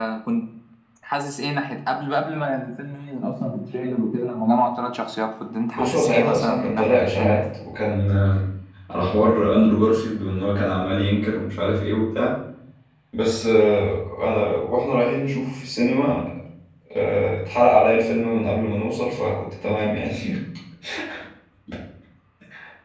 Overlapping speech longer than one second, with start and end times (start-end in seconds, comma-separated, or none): 5.8-7.4